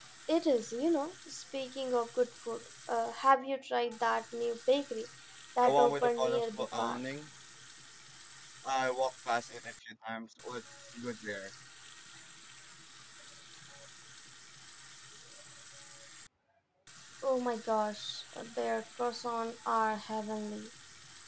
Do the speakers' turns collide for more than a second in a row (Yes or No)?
Yes